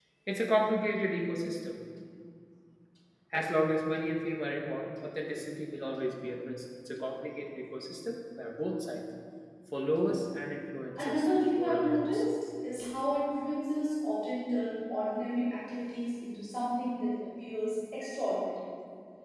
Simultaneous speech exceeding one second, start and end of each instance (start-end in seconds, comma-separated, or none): 11.0-12.2